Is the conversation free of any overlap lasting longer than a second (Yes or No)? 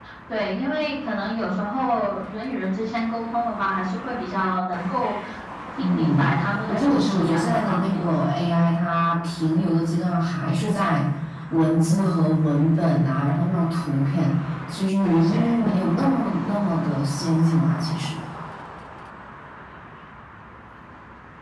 No